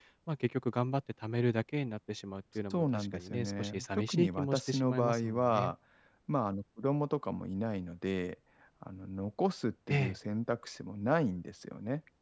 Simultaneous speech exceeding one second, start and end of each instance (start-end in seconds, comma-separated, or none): 2.7-5.7